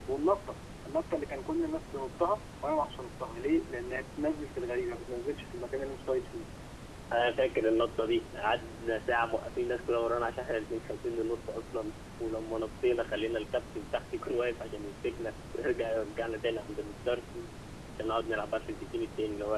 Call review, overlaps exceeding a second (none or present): none